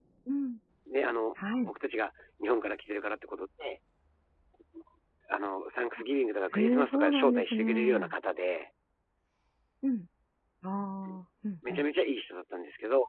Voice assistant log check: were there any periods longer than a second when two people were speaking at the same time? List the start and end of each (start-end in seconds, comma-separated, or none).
6.5-8.1